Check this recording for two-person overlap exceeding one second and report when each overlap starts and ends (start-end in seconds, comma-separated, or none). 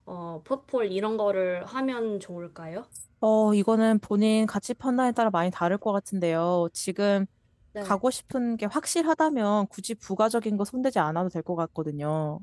none